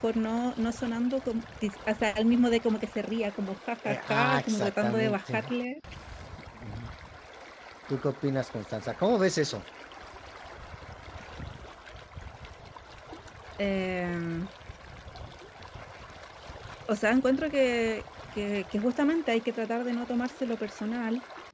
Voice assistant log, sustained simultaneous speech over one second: present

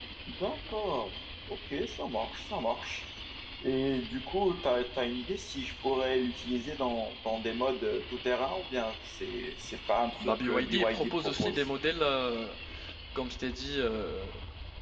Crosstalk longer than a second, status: present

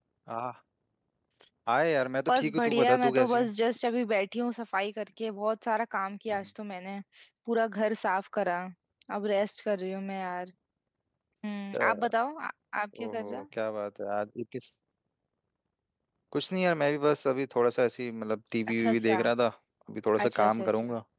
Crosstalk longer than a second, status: present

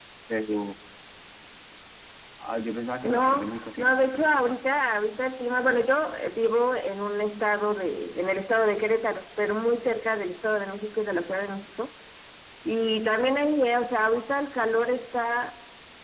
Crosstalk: present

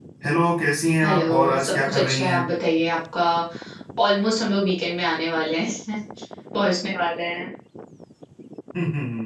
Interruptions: present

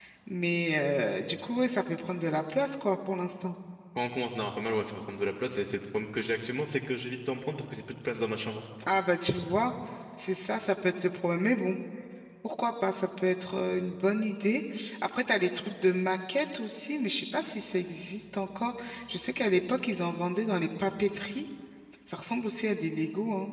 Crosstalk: none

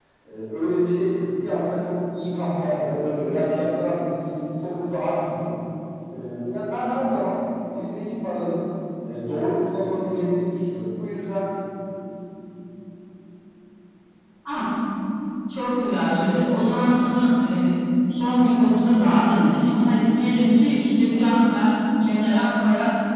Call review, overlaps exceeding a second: none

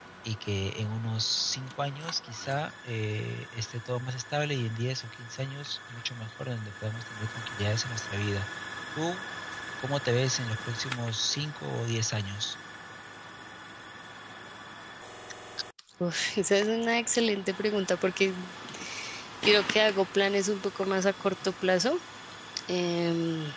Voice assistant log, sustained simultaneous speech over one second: none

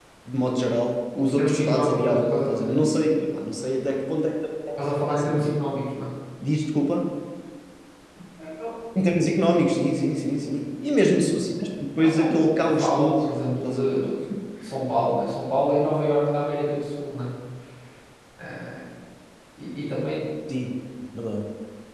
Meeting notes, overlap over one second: present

